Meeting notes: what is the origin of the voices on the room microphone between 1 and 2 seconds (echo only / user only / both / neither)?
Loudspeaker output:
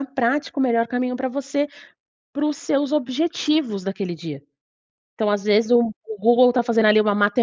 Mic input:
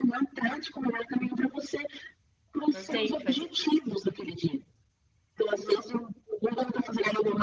echo only